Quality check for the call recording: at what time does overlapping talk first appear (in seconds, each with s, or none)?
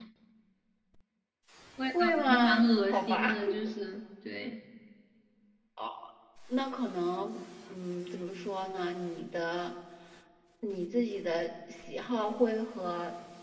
2.0 s